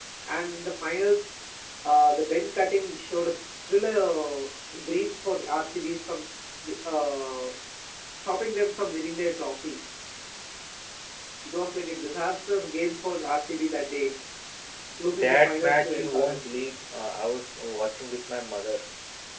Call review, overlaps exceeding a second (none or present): present